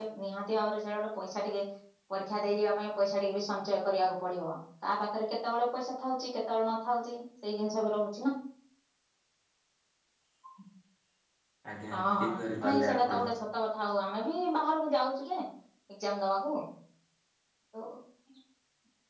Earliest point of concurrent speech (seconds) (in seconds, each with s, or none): 11.9 s